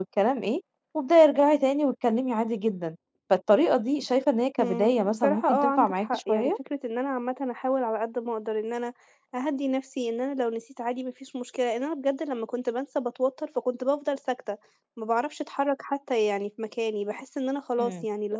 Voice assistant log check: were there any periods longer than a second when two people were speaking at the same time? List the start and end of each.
4.6-6.5

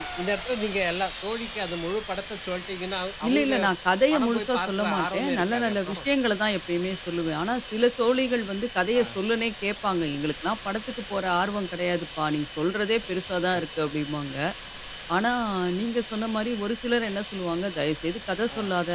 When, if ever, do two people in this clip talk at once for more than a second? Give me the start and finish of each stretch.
4.1-6.0

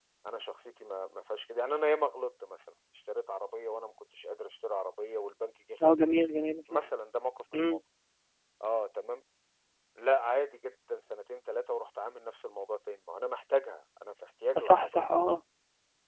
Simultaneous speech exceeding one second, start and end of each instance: none

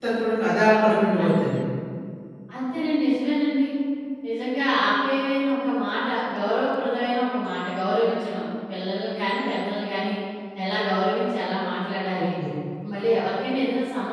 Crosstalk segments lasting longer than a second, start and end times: none

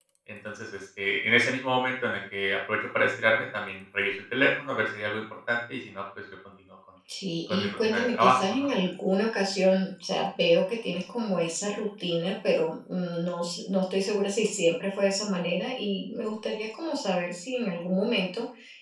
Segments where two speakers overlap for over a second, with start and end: 7.5-8.7

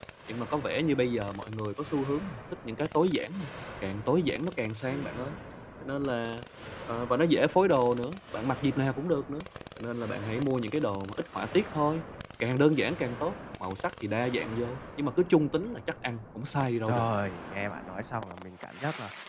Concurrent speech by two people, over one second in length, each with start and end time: none

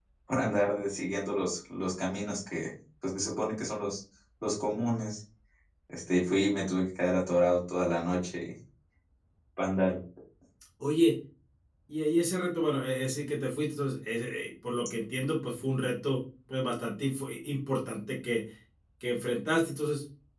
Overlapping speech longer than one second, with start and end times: none

